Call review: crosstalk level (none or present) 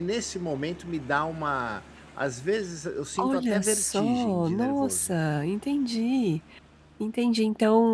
present